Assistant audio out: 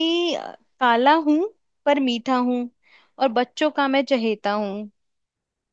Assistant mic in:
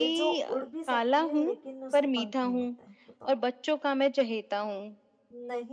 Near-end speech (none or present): present